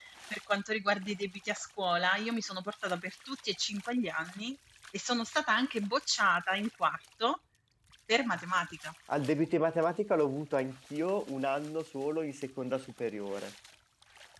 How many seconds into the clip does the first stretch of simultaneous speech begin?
none

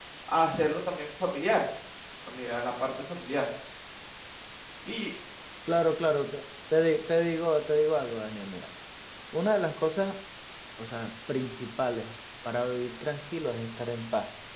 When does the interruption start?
none

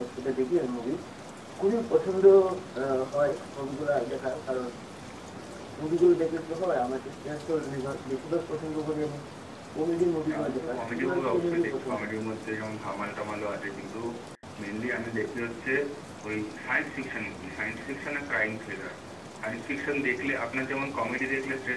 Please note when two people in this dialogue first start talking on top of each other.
10.3 s

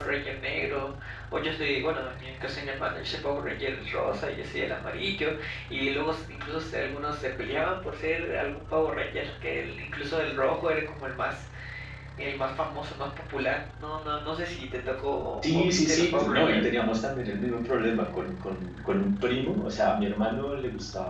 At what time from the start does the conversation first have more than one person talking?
15.4 s

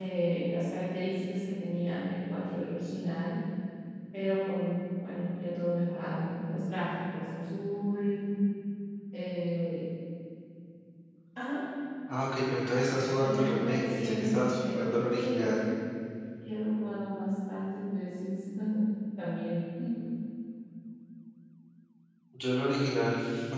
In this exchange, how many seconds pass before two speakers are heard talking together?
13.2 s

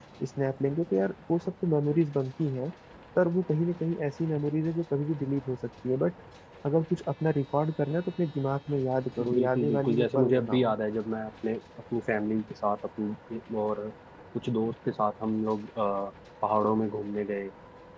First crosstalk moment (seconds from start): 9.2 s

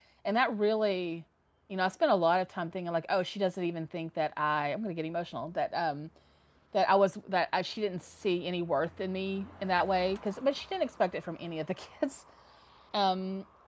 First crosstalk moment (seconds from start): none

